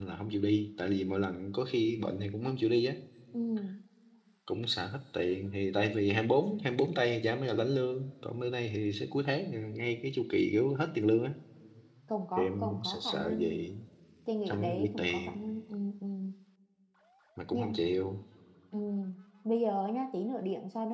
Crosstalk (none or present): present